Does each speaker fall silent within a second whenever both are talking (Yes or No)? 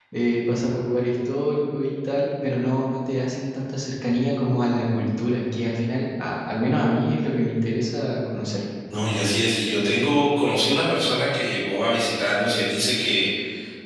Yes